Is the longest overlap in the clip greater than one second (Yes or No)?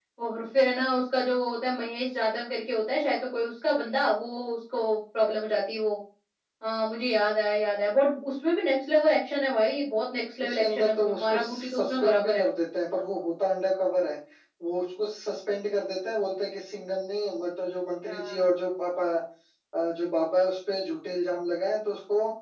Yes